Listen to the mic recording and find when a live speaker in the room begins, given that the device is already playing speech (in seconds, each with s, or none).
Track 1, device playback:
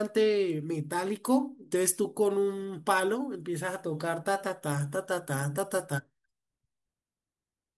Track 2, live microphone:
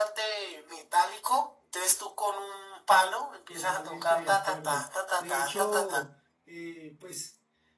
3.5 s